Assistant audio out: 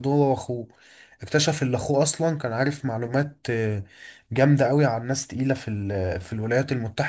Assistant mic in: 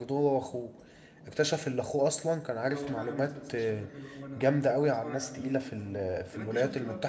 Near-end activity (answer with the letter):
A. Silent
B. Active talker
B